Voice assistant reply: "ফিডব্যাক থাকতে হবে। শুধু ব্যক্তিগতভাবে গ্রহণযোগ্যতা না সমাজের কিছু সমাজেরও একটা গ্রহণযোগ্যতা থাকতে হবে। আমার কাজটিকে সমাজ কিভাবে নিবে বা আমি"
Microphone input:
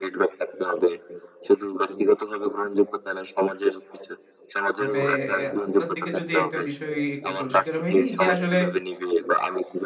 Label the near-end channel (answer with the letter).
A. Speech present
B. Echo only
A